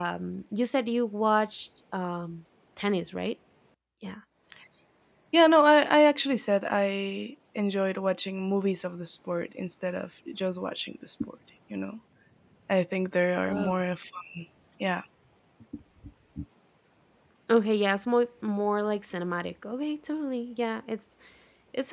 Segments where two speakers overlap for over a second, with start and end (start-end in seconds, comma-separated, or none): none